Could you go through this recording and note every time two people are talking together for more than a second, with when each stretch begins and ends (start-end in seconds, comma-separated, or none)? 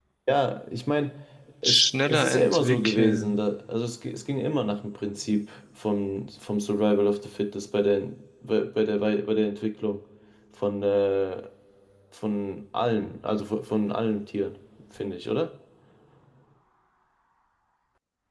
1.6-3.4